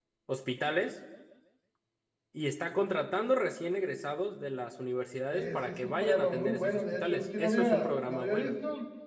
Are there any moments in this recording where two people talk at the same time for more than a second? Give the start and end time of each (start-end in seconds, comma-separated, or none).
5.3-8.6